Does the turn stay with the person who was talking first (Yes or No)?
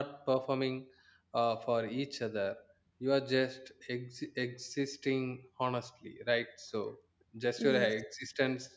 Yes